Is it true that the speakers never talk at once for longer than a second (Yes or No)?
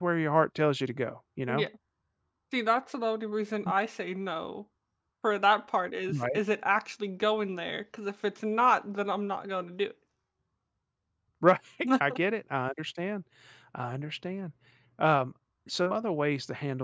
Yes